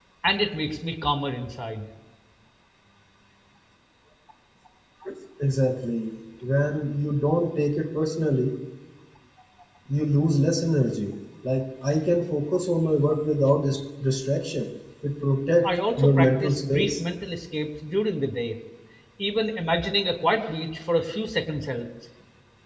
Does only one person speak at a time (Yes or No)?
No